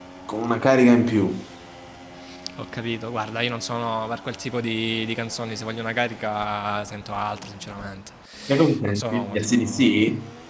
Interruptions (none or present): present